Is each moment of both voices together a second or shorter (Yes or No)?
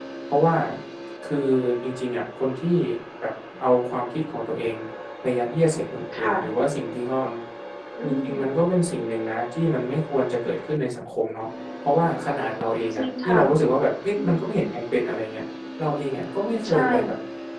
Yes